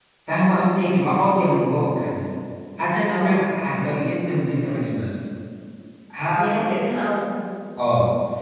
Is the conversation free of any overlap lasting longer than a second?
Yes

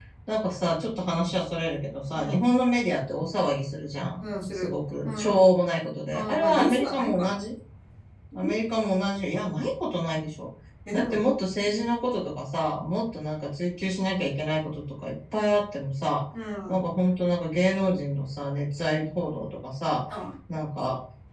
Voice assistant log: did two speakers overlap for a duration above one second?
Yes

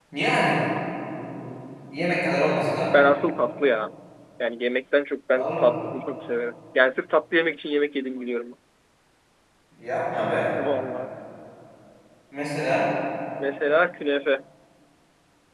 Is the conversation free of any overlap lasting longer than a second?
Yes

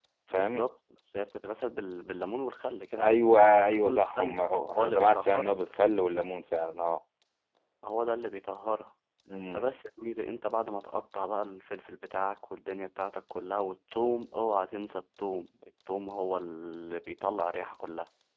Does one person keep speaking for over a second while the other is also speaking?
Yes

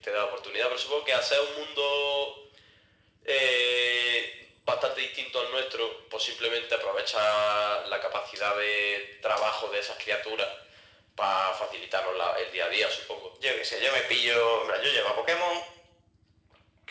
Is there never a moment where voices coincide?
Yes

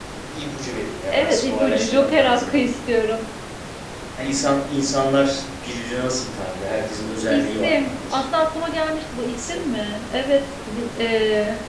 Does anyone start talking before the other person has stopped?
Yes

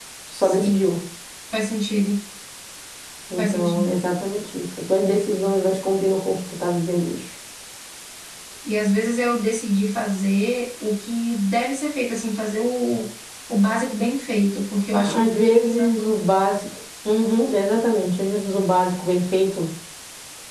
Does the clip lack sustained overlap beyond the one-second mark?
No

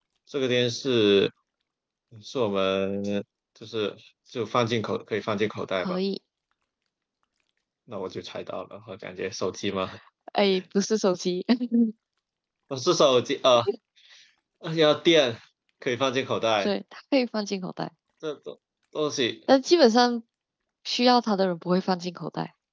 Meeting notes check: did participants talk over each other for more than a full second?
No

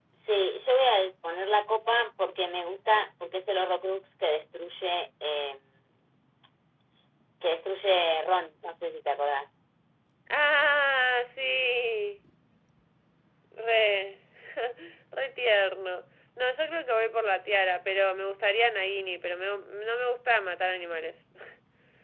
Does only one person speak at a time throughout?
Yes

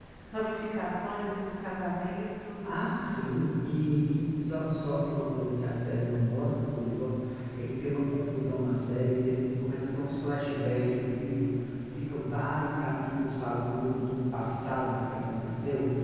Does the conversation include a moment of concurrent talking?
No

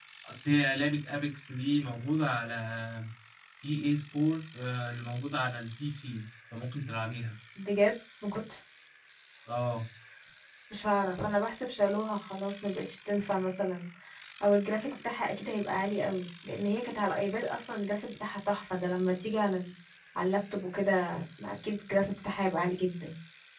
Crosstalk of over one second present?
No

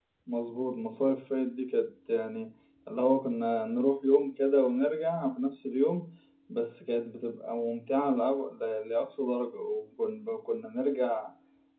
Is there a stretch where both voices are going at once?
No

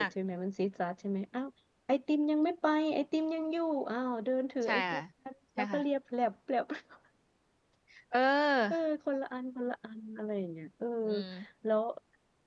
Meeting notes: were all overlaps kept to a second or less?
Yes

